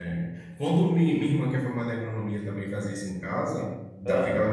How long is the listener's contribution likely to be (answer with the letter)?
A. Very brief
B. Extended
A